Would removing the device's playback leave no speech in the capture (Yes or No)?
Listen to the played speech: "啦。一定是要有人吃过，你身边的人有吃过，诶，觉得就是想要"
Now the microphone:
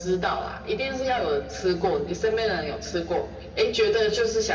Yes